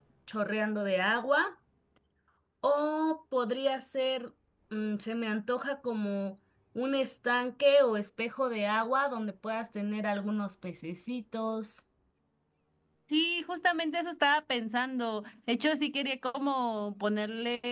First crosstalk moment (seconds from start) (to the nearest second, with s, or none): none